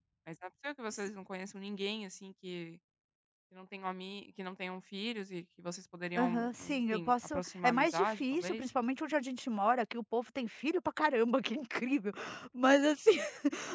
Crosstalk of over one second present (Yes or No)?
Yes